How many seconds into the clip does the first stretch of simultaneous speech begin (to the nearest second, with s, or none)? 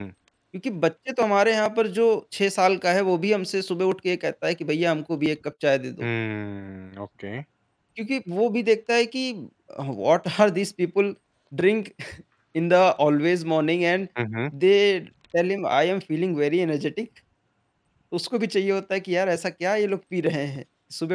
none